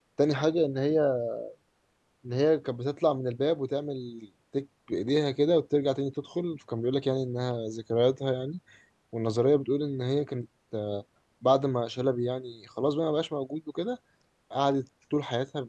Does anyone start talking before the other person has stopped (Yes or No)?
No